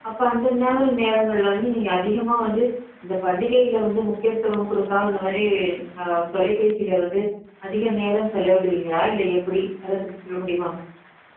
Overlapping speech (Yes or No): No